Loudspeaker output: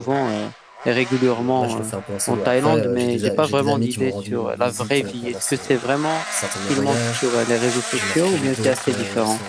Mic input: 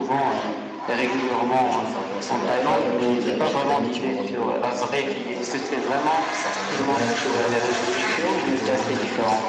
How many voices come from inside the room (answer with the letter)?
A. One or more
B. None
A